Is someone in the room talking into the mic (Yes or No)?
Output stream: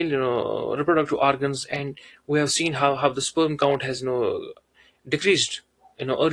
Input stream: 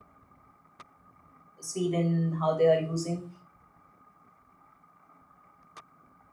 Yes